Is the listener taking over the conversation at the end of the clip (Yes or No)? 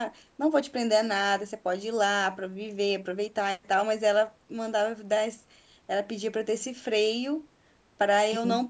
No